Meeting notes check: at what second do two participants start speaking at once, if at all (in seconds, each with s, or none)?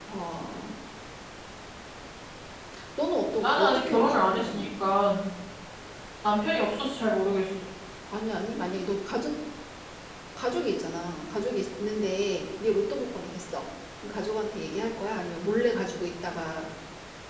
3.4 s